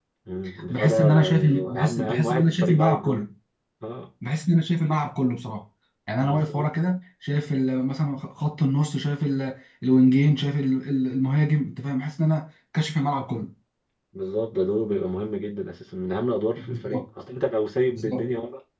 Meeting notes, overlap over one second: present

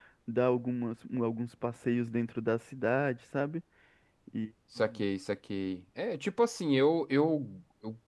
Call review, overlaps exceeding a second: none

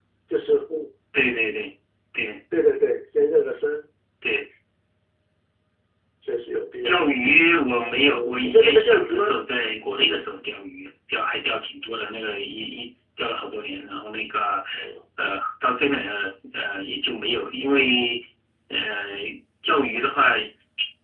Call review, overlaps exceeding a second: present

